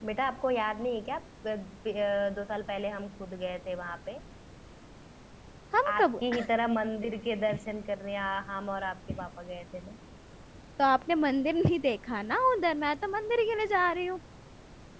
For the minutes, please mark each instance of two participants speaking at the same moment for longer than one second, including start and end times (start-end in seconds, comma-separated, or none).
none